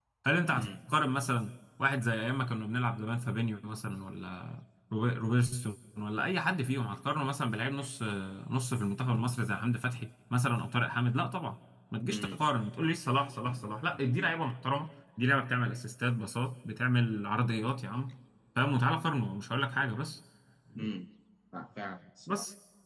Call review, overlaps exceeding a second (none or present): none